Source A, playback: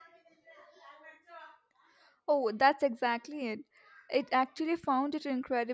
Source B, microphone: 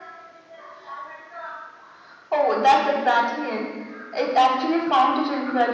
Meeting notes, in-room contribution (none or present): none